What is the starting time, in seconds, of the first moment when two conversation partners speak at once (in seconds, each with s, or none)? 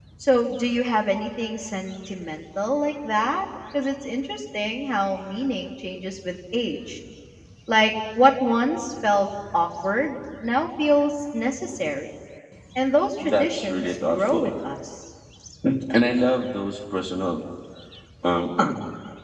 13.2 s